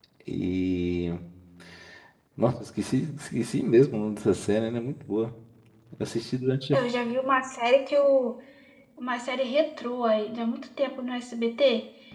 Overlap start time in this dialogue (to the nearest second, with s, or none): none